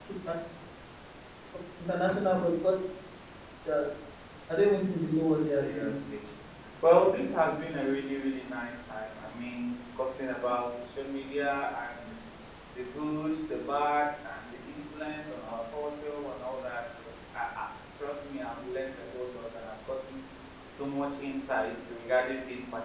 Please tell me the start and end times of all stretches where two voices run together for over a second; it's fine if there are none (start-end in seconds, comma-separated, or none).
none